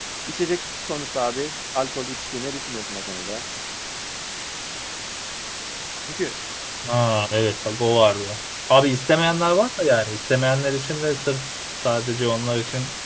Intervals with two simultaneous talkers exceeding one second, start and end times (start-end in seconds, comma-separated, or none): none